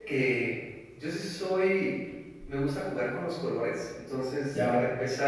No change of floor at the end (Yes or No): Yes